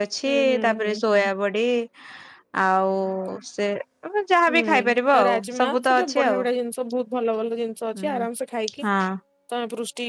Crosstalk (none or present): present